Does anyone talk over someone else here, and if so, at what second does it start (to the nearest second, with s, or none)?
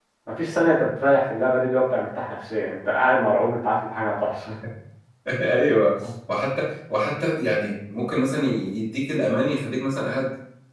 none